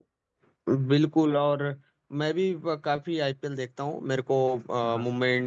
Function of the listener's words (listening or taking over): listening